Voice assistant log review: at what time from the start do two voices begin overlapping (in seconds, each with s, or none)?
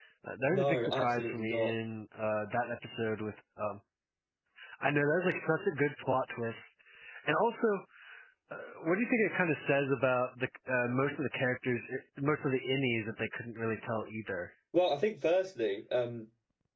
0.5 s